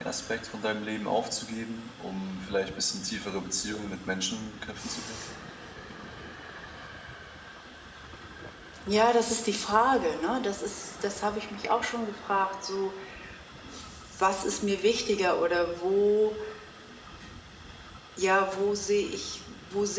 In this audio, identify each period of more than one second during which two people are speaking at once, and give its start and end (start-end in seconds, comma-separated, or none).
none